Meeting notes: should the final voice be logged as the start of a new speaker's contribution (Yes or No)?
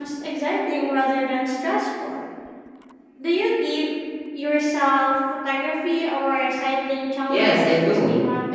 Yes